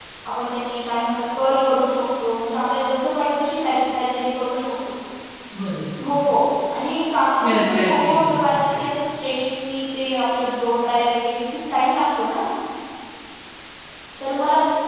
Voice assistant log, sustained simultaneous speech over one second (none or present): present